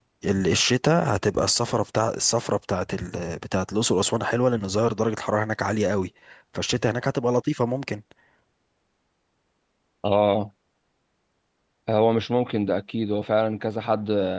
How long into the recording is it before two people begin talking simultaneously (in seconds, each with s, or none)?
none